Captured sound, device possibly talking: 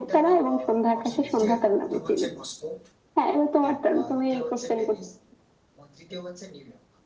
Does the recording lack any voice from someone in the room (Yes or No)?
No